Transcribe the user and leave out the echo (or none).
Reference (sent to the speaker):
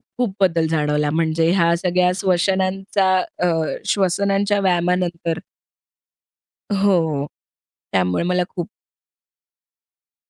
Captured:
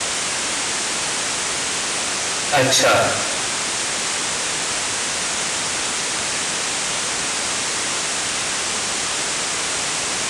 अच्छा